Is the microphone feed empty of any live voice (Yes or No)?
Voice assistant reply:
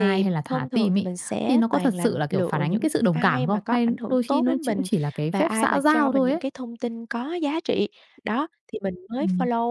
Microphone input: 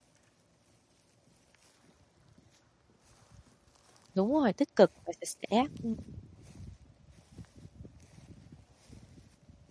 No